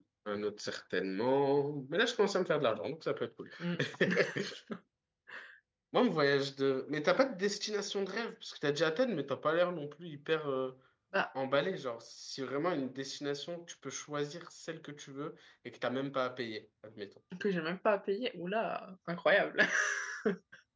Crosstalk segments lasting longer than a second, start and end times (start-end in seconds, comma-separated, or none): none